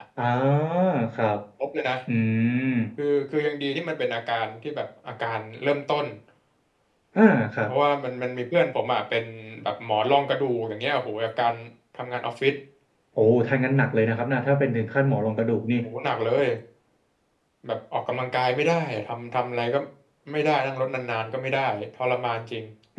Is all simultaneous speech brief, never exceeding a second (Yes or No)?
Yes